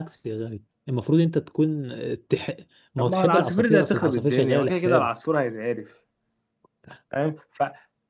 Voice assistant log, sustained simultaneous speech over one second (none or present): present